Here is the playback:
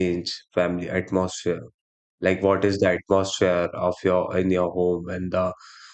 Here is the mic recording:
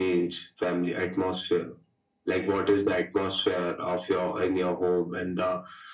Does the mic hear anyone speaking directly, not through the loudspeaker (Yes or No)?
No